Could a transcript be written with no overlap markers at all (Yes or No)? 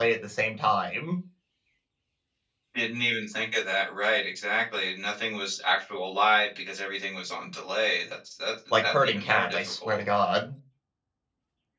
No